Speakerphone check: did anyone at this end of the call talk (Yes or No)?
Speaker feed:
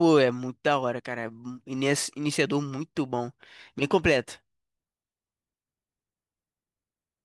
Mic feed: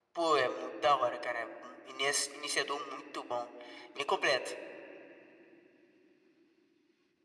No